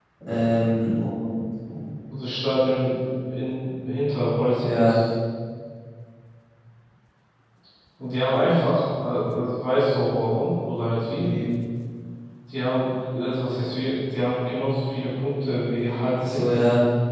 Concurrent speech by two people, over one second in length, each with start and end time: none

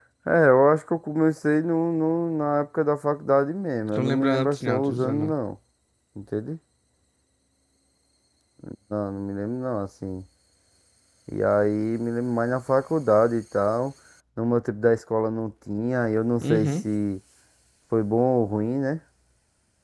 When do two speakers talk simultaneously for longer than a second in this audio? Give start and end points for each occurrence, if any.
4.0-5.3

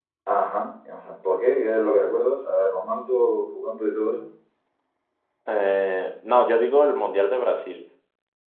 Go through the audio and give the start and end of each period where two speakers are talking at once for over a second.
none

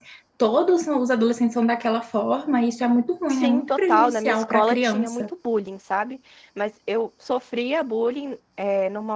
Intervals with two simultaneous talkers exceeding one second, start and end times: 3.3-5.2

